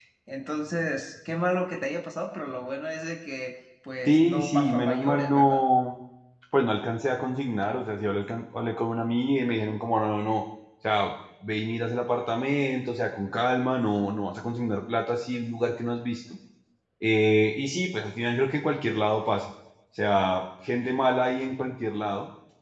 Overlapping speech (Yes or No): Yes